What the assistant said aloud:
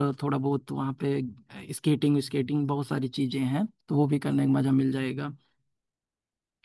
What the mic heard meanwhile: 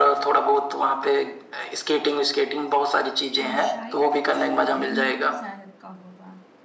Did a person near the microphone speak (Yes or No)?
Yes